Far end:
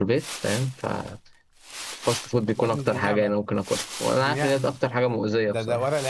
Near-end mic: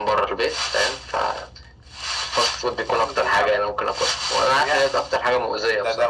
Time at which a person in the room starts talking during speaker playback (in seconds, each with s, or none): none